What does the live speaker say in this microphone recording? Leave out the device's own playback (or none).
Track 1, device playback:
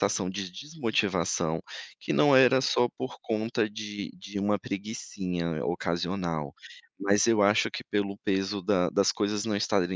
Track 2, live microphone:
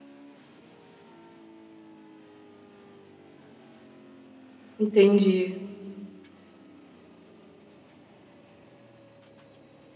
entendi,